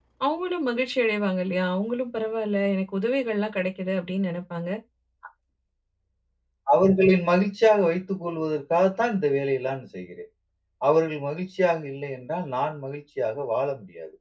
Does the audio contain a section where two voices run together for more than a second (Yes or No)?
No